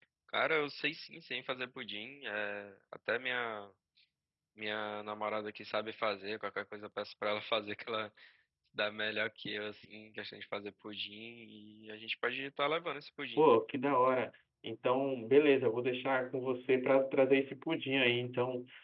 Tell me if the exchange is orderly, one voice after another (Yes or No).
Yes